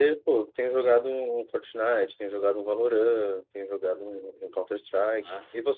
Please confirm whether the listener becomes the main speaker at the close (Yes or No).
Yes